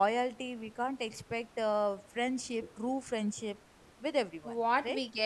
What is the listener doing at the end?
taking over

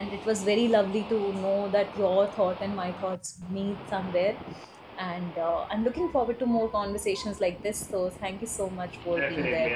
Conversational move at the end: taking over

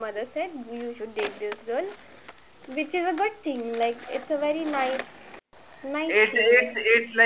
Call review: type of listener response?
taking over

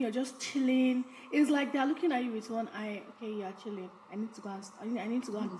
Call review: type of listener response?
taking over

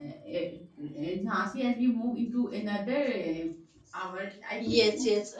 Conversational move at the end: taking over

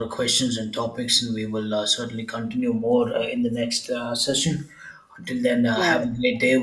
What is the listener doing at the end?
listening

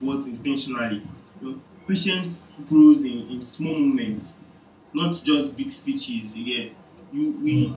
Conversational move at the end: listening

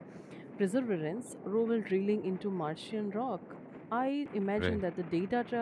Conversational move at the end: listening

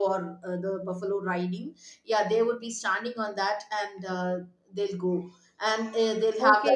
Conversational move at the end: taking over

